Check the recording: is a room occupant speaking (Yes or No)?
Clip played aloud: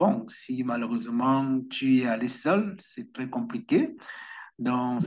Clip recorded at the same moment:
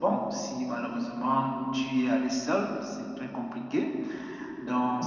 No